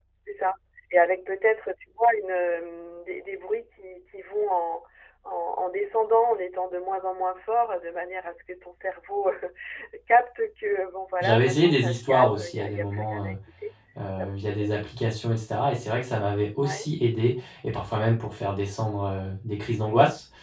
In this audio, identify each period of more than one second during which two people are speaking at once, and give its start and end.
11.2-13.3

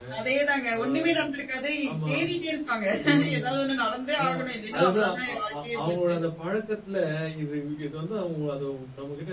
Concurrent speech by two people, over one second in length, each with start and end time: 4.8-6.1

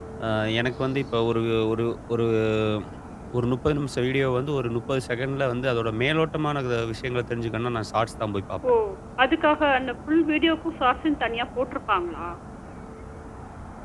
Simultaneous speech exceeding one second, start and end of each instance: none

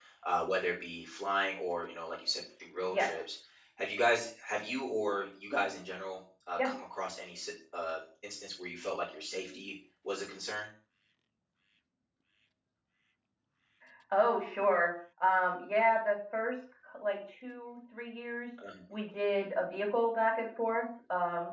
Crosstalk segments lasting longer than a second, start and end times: none

